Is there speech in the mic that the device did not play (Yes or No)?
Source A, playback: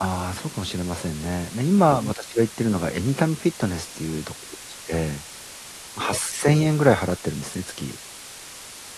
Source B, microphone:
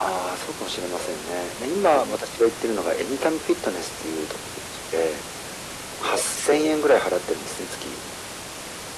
No